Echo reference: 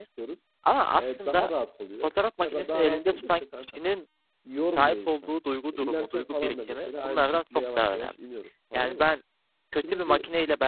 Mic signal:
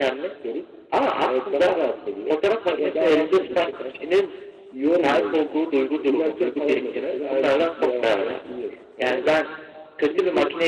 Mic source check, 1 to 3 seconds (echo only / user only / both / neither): echo only